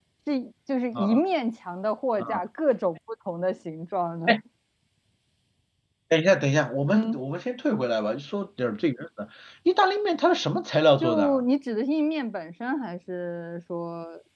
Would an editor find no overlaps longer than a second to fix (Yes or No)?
Yes